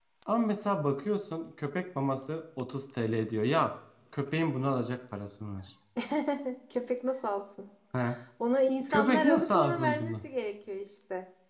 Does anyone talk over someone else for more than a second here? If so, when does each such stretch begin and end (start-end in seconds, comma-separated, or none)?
8.9-10.2